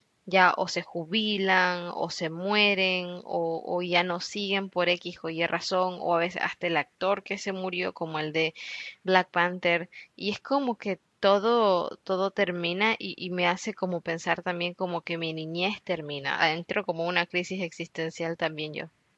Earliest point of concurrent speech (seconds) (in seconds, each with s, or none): none